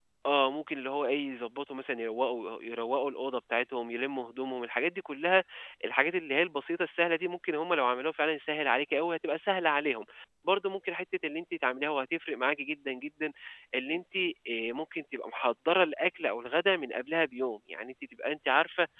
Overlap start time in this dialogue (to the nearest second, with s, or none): none